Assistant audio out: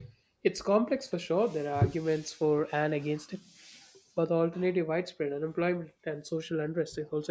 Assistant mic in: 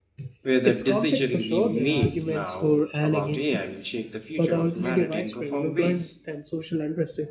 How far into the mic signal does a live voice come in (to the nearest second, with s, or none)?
0 s